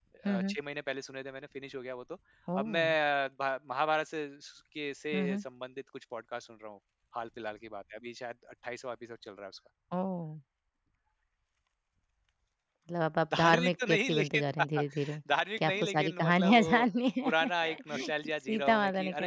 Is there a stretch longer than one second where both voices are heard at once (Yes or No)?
Yes